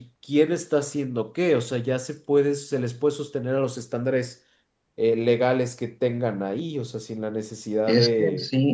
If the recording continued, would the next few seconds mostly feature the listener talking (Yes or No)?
Yes